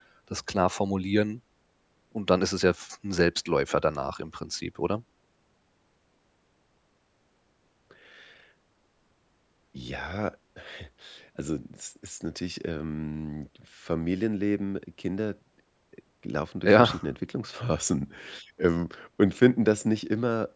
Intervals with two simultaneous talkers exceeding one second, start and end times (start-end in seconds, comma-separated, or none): none